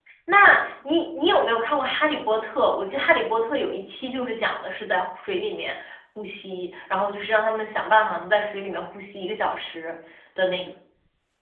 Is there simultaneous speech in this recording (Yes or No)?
No